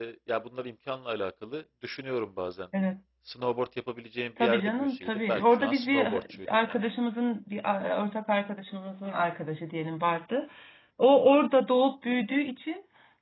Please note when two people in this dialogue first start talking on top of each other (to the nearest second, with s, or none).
4 s